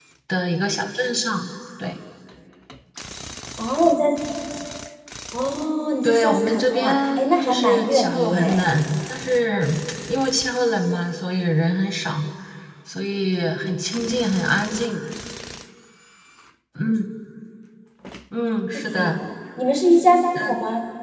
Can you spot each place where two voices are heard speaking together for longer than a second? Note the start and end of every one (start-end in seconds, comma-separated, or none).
6.0-8.6